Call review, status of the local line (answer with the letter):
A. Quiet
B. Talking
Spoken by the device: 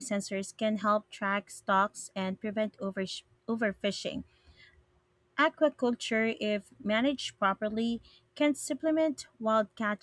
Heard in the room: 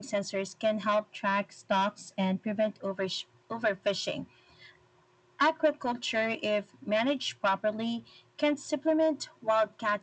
A